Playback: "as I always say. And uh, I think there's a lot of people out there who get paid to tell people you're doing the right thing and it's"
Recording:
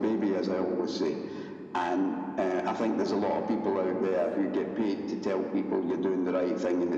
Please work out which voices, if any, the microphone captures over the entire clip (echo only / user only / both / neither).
echo only